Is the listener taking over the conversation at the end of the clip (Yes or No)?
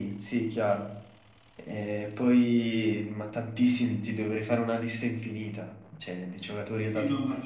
Yes